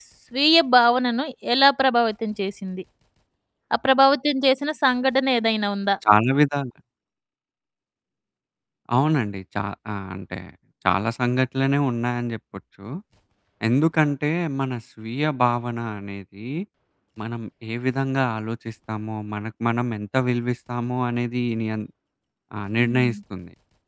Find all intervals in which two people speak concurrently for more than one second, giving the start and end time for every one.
none

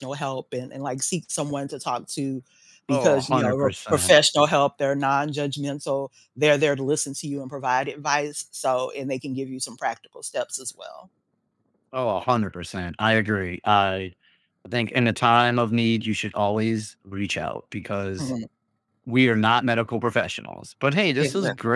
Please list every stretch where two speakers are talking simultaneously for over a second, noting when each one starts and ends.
2.9-4.1

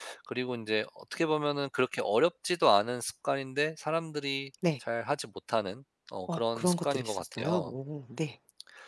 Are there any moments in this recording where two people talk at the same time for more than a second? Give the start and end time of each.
6.3-7.7

